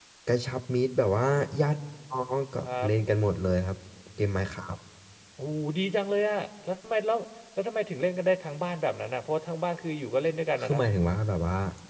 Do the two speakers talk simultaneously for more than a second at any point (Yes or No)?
No